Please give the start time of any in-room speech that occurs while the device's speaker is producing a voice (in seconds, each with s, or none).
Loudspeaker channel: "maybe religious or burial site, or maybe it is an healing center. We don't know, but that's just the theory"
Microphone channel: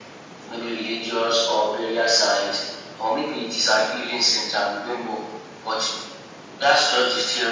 none